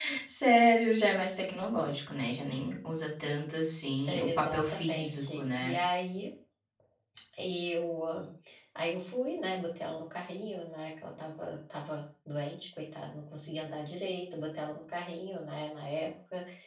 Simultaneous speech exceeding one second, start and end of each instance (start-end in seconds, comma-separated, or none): 4.1-5.8